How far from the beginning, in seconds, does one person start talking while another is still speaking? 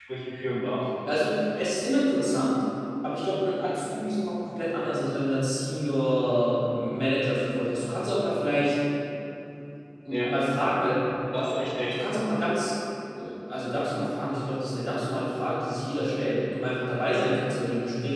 none

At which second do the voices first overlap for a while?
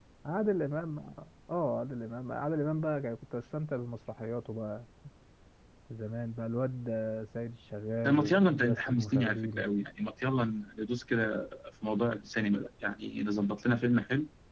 8.0 s

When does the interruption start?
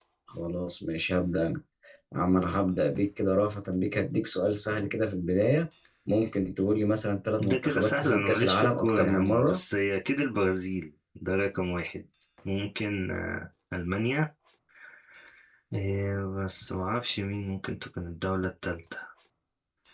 7.4 s

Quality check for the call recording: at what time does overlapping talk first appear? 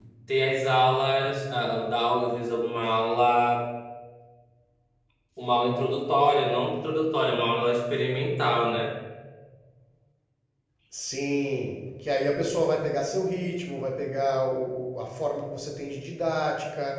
none

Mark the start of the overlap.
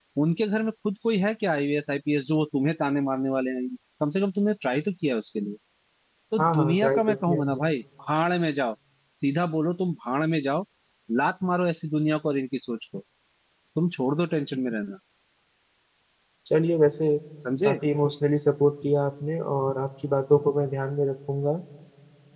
6.4 s

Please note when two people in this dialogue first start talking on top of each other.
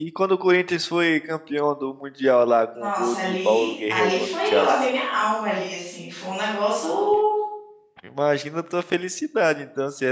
2.8 s

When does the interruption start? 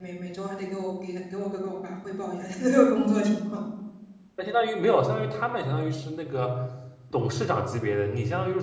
none

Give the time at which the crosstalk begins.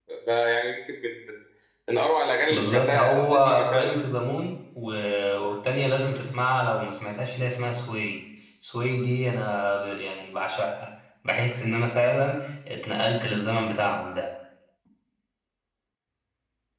2.5 s

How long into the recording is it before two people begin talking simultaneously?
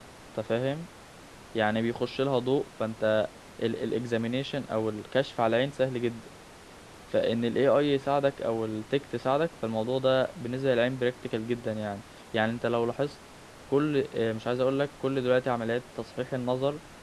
none

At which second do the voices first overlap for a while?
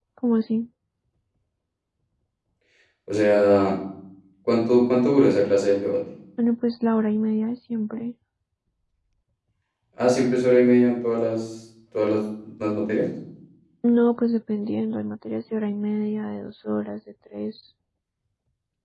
none

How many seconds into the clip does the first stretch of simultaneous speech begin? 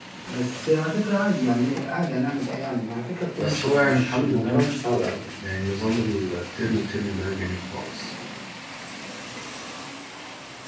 3.4 s

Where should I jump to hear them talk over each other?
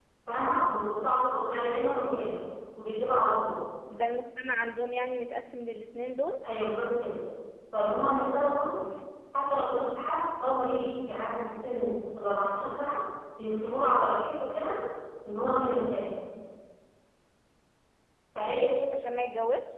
none

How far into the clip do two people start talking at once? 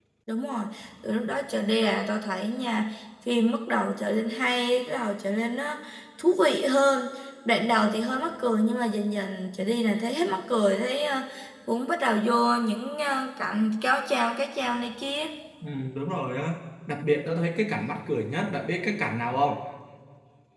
none

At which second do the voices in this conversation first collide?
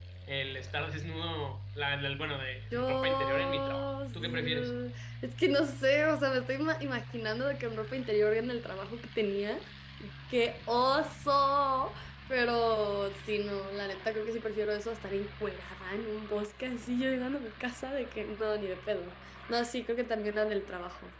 2.7 s

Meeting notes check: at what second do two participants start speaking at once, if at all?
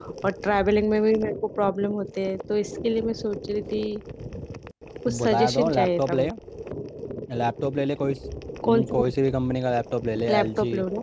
5.1 s

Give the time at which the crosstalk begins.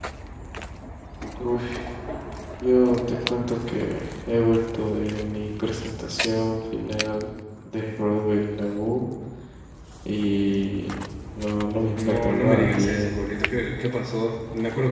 12.0 s

